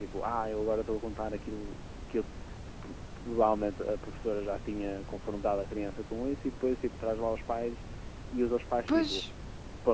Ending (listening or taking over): listening